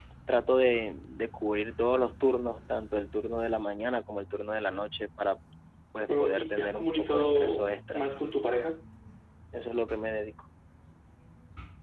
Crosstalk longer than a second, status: present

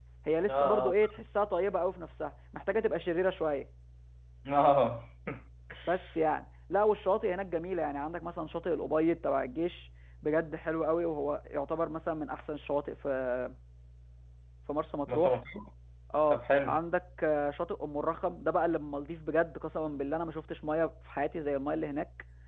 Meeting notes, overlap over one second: none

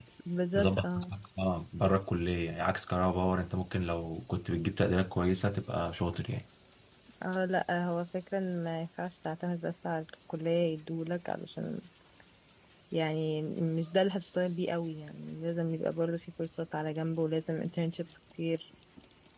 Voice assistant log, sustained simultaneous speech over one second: none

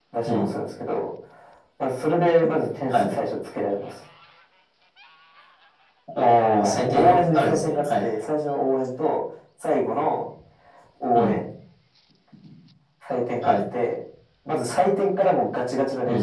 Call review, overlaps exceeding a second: present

